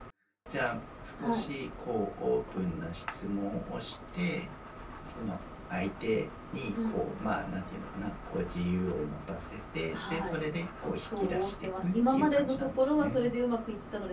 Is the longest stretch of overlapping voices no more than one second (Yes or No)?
No